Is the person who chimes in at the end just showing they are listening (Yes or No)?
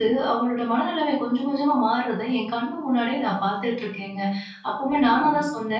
Yes